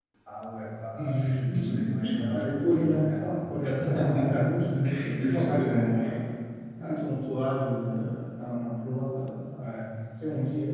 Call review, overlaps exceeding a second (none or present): present